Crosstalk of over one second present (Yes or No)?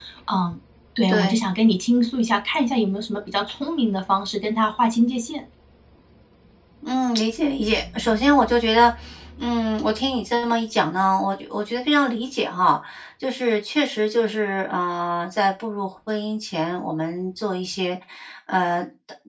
No